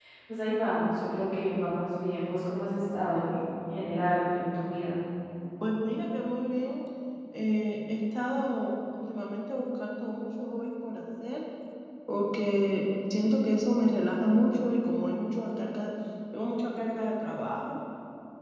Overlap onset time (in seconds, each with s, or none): none